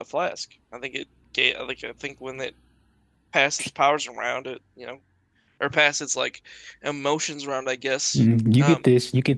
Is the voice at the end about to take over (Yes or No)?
Yes